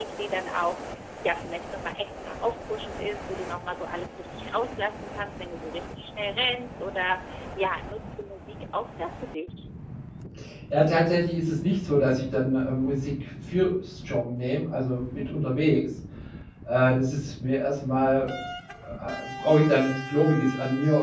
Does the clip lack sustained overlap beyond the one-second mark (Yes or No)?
Yes